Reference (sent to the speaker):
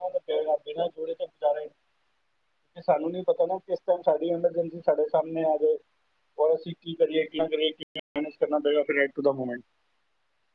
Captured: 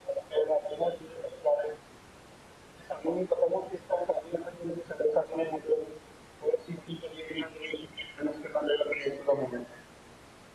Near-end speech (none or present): none